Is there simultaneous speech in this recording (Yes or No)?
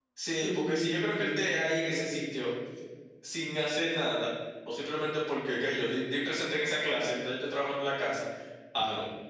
Yes